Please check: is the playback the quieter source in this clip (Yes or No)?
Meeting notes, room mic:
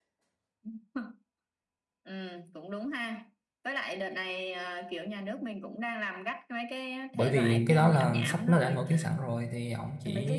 Yes